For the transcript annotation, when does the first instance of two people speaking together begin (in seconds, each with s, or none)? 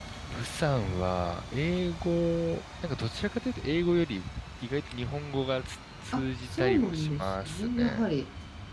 6.1 s